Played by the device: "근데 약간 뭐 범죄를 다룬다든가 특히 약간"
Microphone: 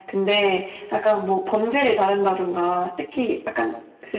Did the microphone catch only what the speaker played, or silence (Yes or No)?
Yes